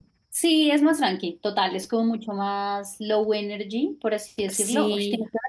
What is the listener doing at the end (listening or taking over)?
listening